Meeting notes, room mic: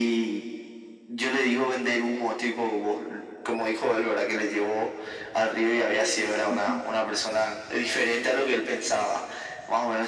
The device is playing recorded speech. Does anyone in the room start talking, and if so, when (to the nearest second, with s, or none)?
6 s